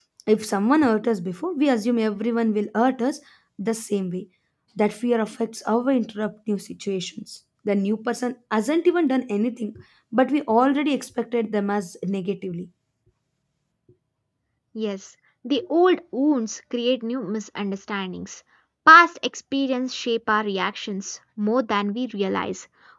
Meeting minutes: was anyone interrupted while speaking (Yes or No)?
No